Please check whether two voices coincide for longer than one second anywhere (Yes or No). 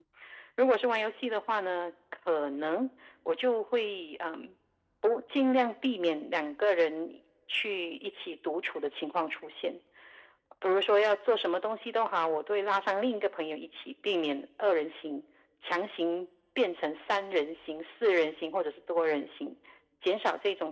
No